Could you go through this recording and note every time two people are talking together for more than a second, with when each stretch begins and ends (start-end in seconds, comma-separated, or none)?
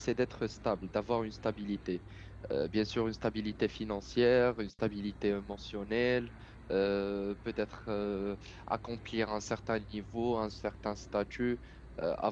none